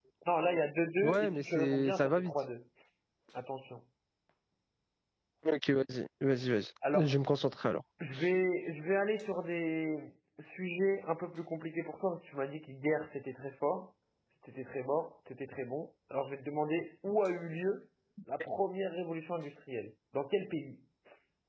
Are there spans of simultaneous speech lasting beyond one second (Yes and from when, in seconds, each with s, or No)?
Yes, from 1.0 s